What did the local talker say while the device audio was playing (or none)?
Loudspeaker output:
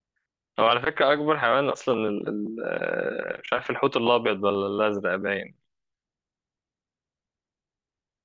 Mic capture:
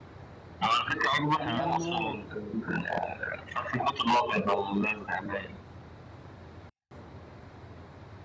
ميانمار